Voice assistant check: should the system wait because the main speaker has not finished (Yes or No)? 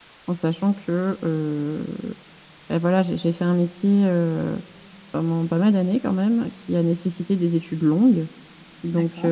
Yes